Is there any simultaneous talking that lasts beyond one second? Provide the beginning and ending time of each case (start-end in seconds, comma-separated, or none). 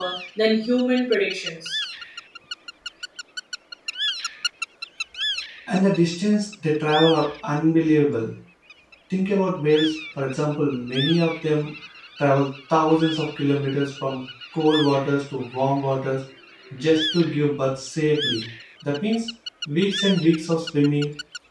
none